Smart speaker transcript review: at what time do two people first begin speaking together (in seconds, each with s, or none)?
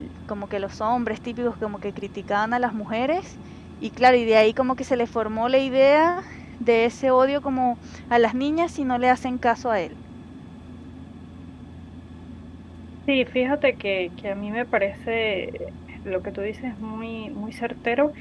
none